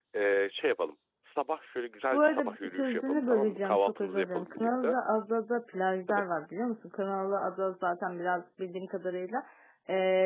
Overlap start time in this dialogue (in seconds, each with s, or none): 2.1 s